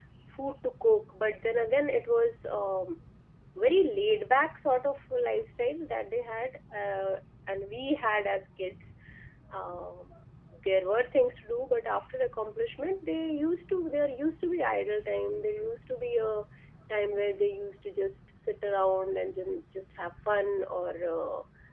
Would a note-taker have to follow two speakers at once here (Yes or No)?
No